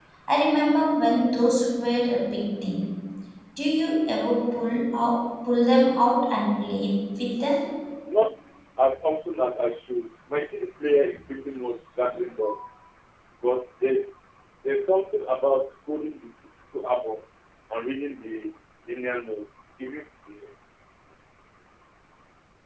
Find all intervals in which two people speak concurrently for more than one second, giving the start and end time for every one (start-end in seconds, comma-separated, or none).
none